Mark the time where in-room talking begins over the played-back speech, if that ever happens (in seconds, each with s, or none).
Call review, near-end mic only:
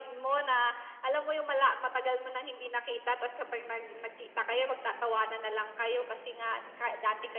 none